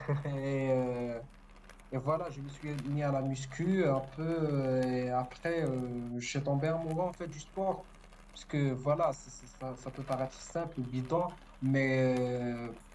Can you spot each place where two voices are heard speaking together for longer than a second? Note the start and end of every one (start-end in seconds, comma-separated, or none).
none